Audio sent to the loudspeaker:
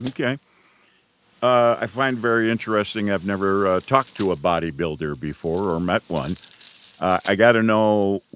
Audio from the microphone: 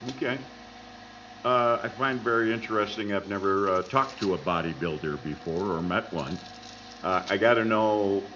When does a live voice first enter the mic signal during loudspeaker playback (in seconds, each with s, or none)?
none